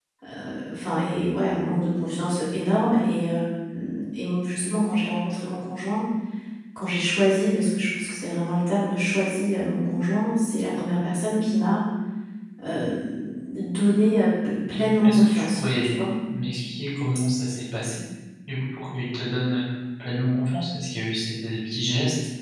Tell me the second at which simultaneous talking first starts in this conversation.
14.6 s

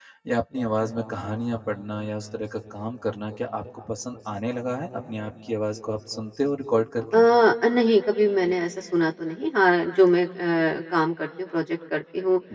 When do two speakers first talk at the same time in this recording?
none

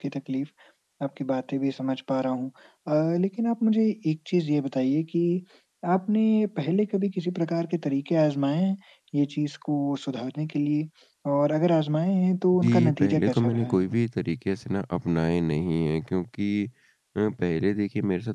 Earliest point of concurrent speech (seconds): 12.5 s

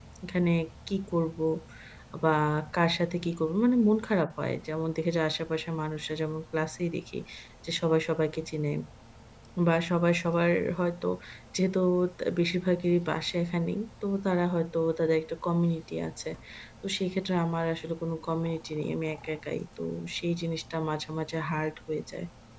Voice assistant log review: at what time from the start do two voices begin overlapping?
none

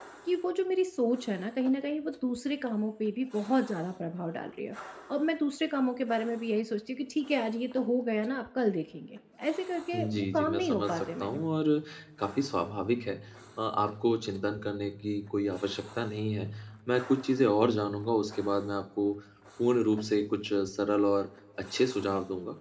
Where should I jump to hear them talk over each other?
9.9 s

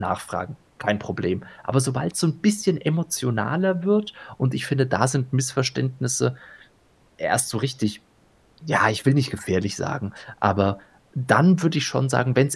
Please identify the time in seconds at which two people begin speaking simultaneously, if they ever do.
none

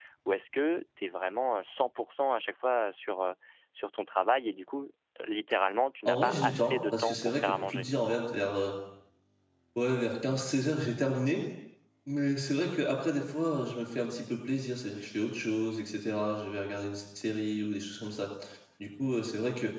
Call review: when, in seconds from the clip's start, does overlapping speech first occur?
6.0 s

